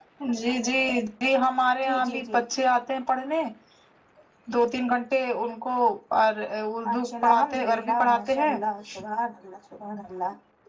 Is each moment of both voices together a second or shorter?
No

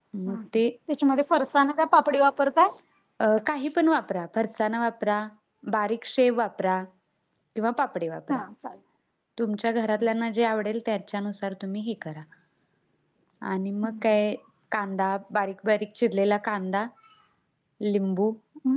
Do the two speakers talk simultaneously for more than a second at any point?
No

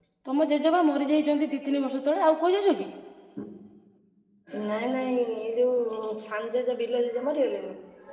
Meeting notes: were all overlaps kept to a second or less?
Yes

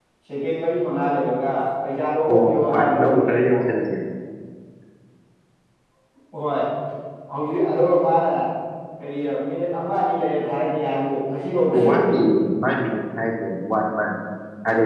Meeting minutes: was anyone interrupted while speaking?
Yes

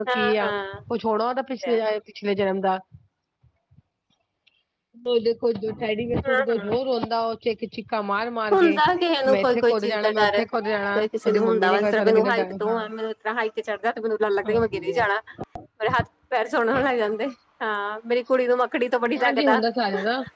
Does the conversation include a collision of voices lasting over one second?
Yes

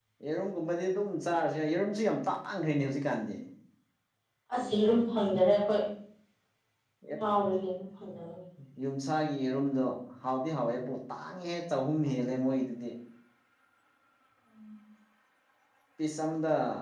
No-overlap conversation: Yes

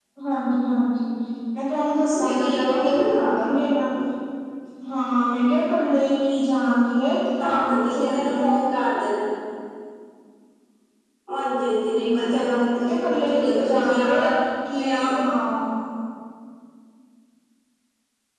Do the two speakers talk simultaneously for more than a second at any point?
Yes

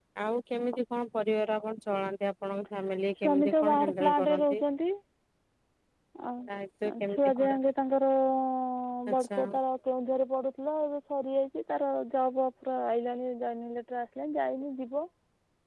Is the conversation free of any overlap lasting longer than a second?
No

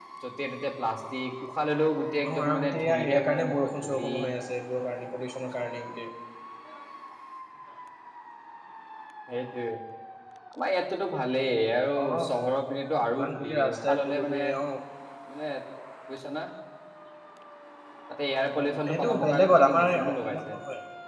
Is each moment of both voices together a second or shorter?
No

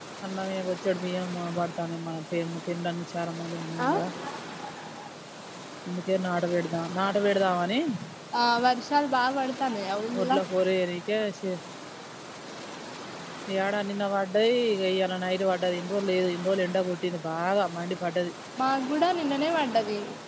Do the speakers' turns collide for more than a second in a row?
No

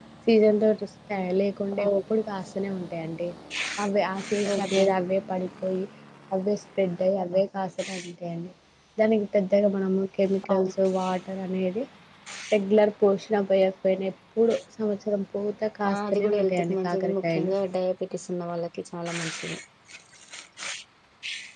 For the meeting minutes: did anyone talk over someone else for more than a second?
Yes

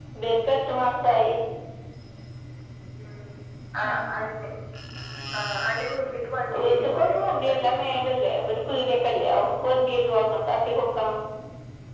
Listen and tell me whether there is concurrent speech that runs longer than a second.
Yes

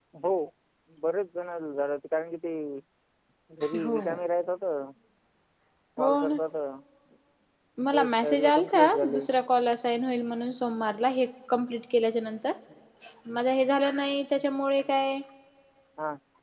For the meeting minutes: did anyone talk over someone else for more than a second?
Yes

